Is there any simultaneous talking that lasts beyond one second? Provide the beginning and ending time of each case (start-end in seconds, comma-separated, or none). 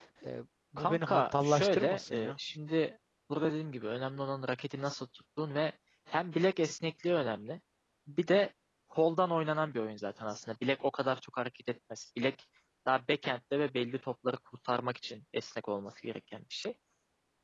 0.8-2.3